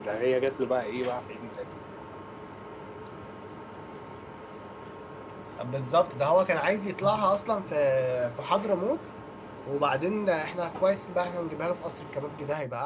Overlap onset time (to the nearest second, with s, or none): none